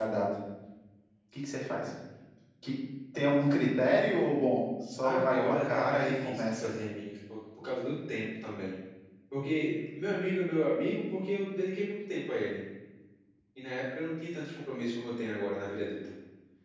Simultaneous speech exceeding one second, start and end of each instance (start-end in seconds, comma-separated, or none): 5.0-6.7